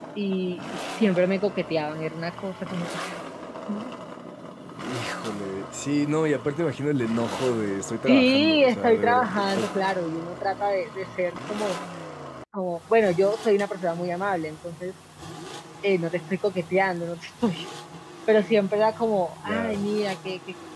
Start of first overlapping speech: 8.1 s

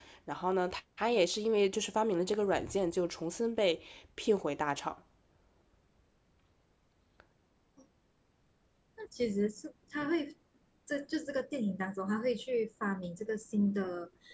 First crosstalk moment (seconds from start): none

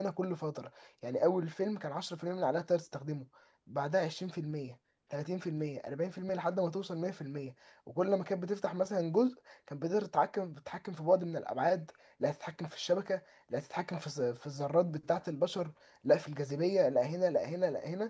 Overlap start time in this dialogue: none

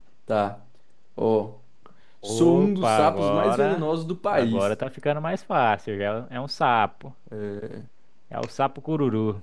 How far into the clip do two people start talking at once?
2.2 s

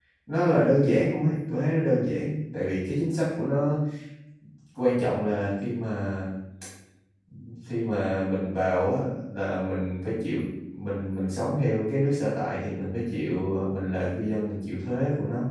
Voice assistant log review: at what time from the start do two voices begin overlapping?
none

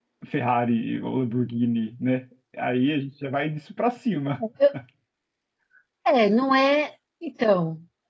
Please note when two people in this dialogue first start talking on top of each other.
none

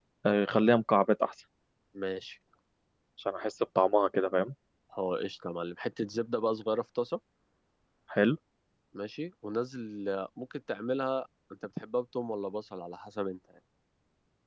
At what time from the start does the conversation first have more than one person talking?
none

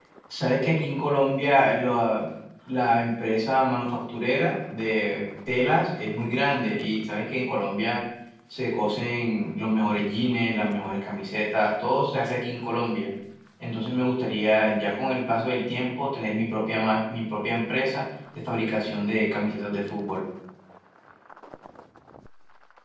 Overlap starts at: none

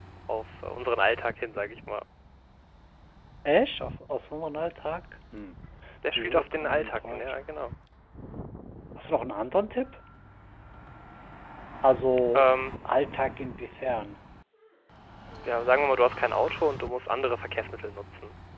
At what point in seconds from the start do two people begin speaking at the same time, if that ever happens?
6.2 s

